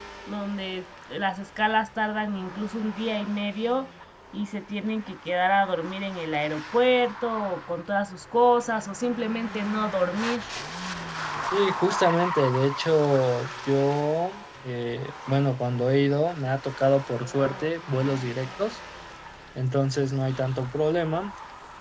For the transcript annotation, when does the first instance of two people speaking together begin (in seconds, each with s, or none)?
none